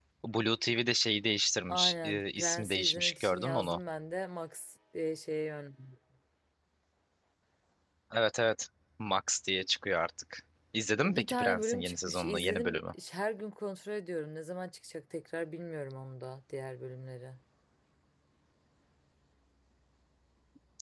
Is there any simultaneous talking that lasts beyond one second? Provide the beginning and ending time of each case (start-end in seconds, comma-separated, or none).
1.7-3.8, 11.1-12.9